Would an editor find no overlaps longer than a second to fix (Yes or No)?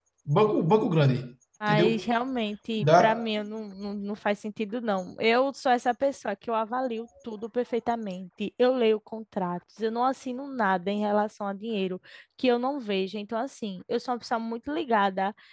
Yes